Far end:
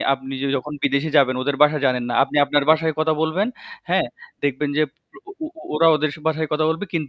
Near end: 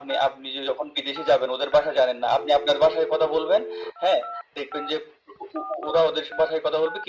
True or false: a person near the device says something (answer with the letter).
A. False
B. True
A